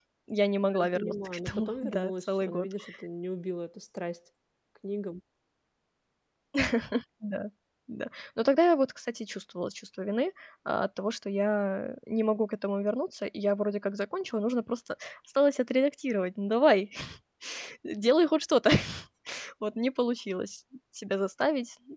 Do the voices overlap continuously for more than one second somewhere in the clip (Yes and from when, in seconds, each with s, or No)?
Yes, from 0.8 s